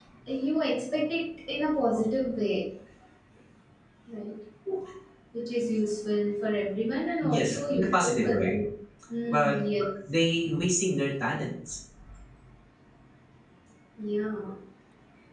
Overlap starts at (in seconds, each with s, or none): 7.2 s